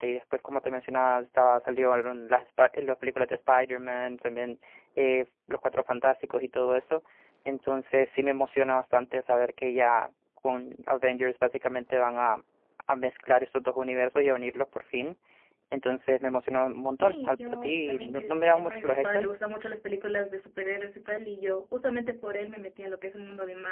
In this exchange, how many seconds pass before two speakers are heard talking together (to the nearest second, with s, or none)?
17 s